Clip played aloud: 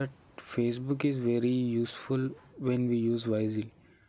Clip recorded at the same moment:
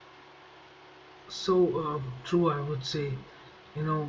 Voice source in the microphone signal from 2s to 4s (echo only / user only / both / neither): user only